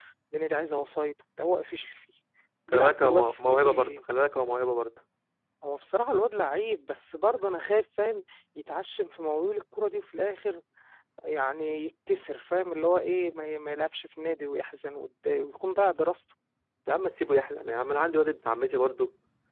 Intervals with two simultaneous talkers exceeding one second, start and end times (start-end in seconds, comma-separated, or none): 2.7-4.0